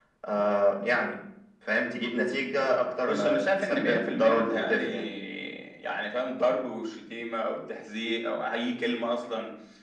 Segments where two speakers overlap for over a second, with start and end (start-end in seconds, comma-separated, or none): 3.1-4.8